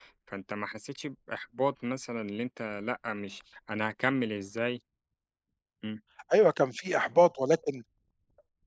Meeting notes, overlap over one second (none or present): none